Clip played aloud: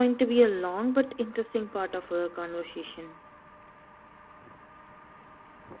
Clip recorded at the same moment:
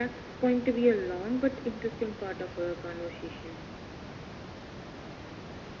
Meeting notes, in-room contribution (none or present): none